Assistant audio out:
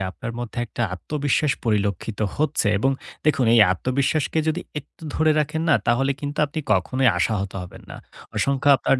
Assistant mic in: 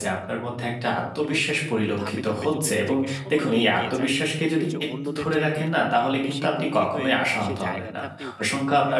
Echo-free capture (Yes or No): No